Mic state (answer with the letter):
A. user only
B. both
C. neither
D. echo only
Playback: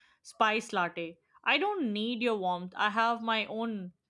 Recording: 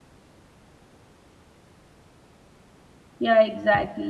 A